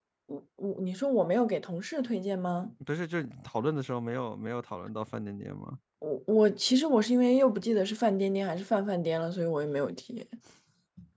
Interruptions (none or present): none